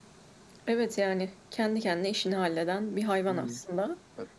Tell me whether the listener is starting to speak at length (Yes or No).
Yes